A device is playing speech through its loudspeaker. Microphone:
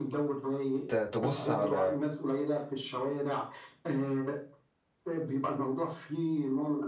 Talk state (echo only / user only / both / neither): both